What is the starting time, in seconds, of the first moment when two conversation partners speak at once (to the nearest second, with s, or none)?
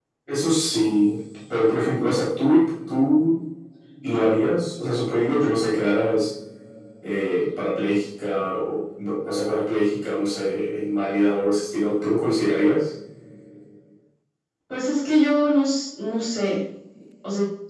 none